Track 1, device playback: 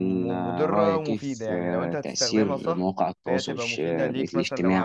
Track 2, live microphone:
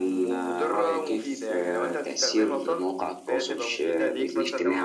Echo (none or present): present